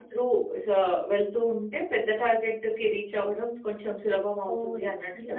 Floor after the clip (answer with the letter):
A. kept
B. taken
B